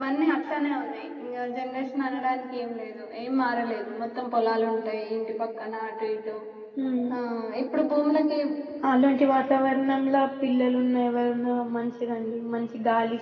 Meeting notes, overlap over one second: none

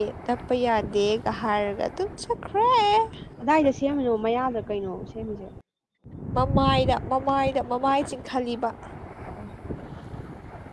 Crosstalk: none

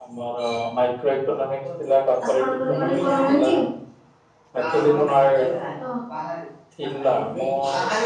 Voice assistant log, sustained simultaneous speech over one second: present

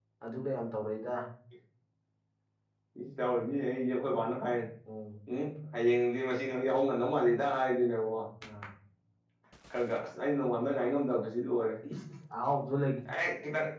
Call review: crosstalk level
none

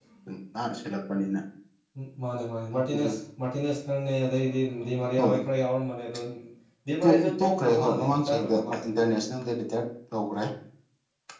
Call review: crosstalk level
present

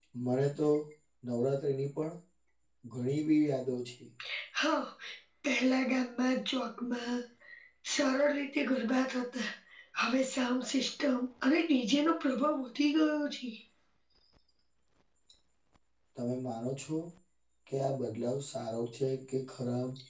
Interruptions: none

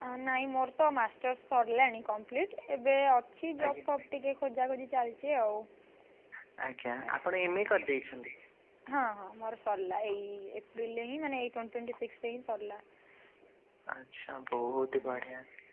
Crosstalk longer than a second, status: none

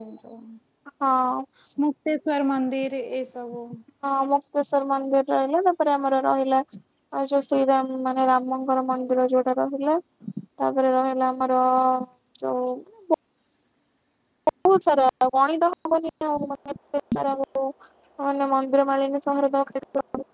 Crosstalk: none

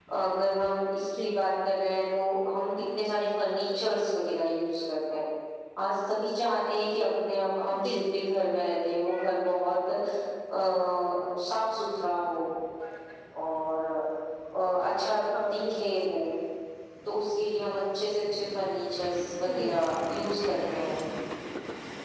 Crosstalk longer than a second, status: none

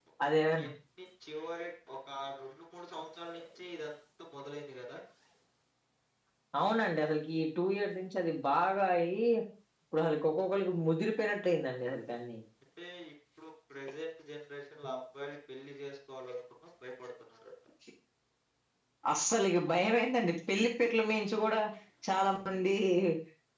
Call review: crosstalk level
none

